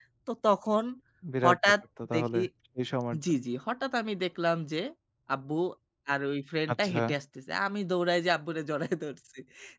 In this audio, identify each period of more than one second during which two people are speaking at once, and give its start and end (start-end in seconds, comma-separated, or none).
none